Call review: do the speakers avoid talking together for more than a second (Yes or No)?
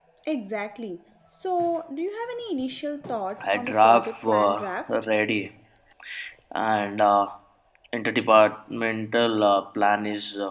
No